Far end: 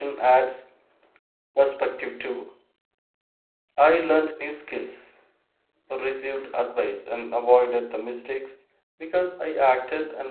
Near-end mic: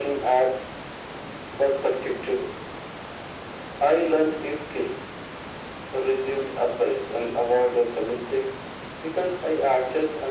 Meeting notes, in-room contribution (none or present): none